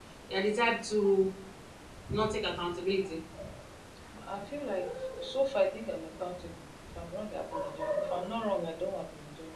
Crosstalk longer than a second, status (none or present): none